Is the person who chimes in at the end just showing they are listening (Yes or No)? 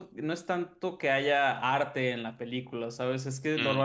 Yes